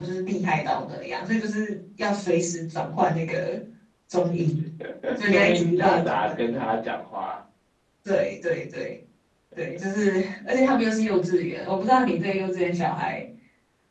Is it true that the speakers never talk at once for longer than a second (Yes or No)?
No